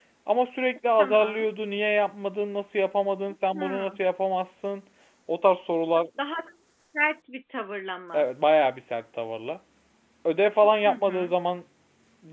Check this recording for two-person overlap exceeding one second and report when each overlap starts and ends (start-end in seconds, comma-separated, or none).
none